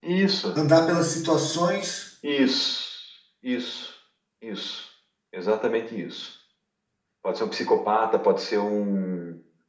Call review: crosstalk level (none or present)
none